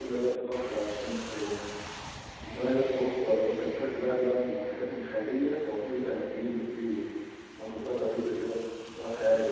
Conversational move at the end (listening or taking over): taking over